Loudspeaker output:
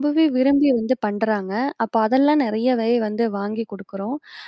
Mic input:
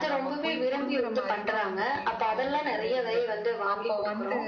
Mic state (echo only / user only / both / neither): both